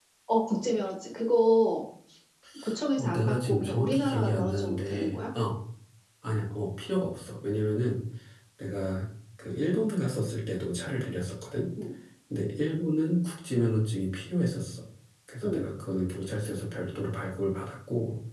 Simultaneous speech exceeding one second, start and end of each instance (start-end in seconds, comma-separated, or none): 3.0-5.2